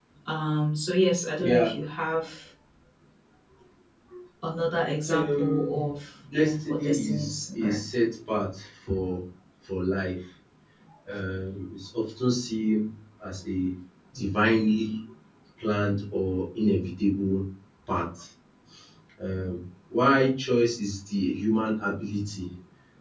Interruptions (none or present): present